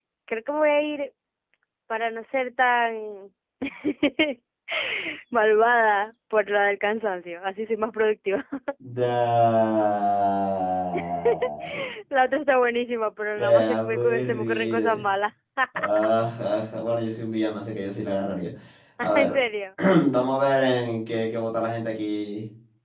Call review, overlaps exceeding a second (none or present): present